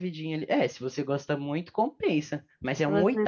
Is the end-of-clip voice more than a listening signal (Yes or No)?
Yes